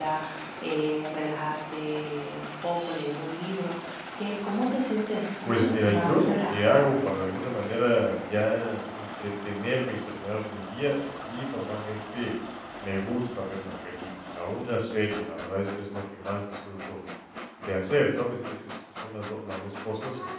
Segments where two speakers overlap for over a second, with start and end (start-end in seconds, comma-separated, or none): 5.4-7.0